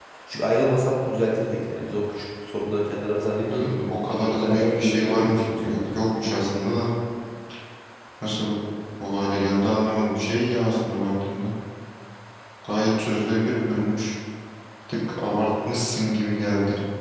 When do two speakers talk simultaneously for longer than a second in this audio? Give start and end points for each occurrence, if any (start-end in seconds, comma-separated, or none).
4.4-5.8